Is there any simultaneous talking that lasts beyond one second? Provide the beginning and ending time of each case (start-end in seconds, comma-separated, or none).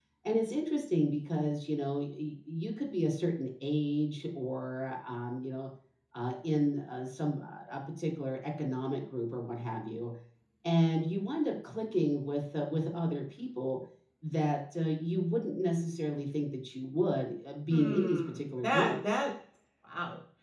17.7-19.2